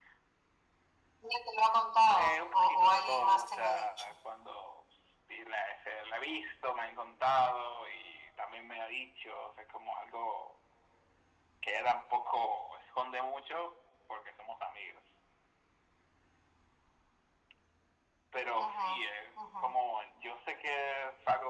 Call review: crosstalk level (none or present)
present